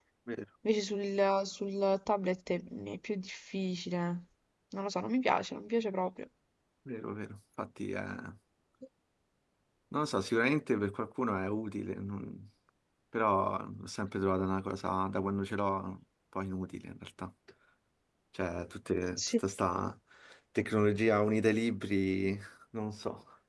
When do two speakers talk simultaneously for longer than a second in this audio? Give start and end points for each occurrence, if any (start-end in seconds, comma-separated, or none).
none